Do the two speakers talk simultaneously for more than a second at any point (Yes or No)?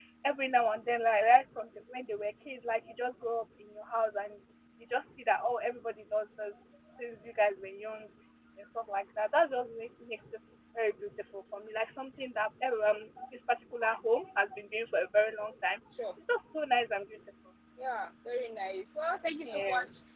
No